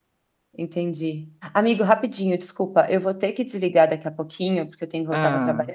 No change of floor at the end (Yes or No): Yes